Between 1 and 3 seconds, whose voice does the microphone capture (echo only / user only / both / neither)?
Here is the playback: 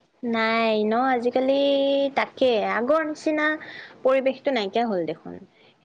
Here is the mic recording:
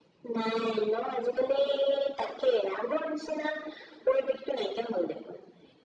echo only